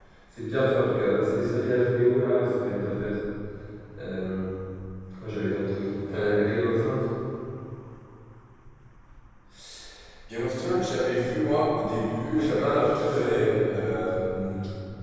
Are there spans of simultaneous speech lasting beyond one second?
Yes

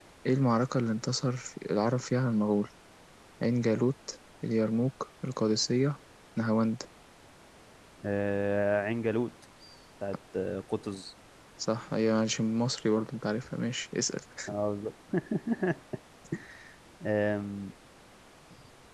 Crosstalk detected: No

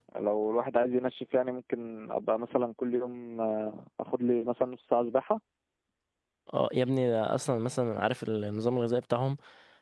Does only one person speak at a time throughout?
Yes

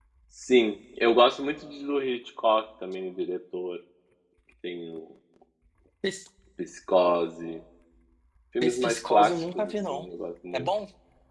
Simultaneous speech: Yes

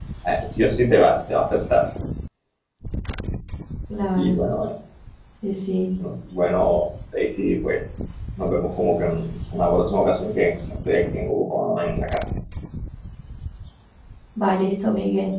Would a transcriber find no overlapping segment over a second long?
Yes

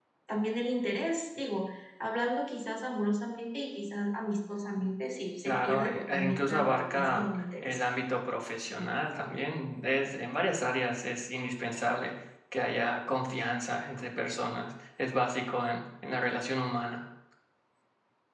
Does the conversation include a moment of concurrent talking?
Yes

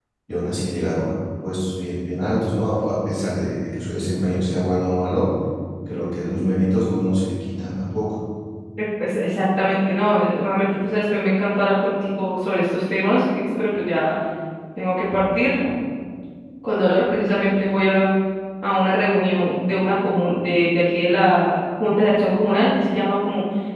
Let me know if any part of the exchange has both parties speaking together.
No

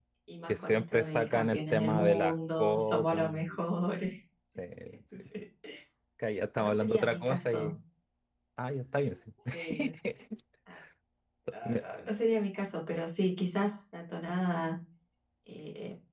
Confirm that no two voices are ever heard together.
No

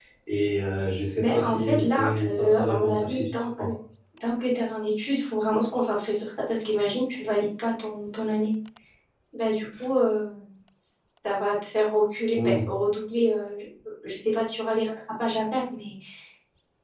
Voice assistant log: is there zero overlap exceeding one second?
No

